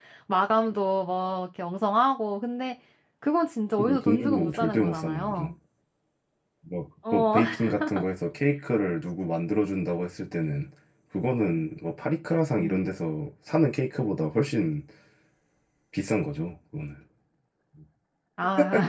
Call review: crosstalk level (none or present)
present